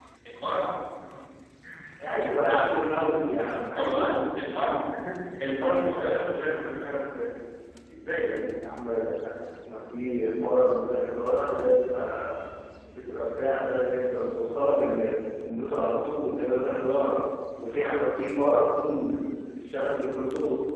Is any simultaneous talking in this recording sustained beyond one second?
No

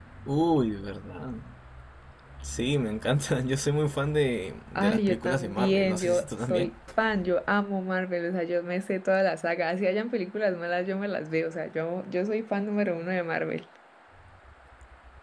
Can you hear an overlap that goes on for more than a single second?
Yes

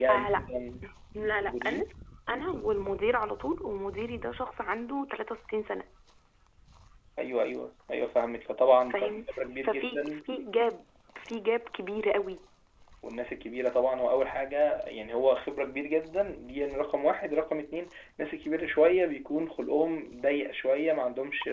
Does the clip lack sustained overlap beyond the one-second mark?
Yes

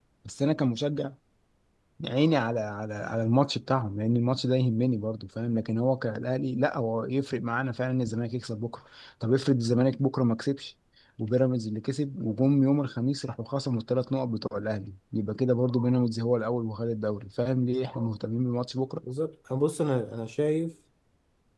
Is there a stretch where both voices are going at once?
No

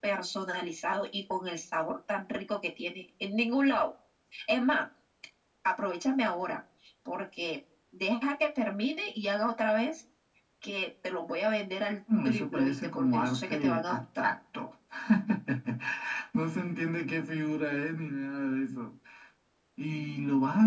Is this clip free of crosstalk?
No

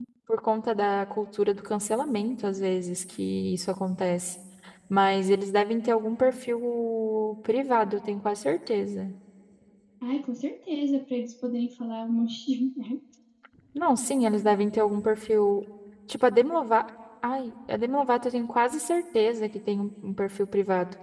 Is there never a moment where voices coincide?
Yes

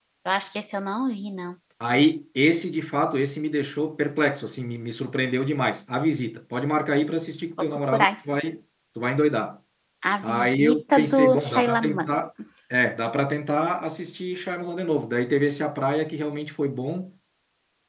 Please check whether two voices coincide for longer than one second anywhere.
Yes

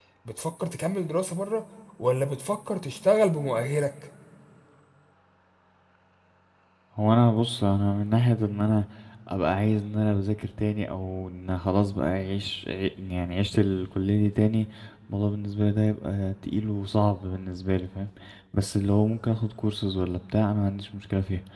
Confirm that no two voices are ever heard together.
Yes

